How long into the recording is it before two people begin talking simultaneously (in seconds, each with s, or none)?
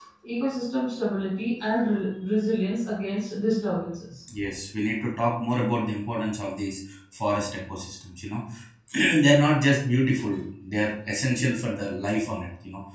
none